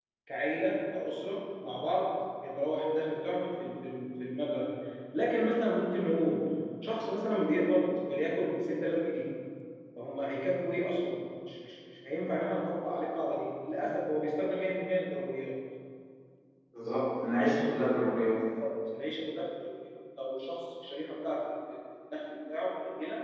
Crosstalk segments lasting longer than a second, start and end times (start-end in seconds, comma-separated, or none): none